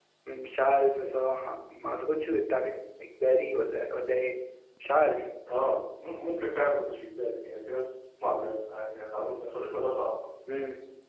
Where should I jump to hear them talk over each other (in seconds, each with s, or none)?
none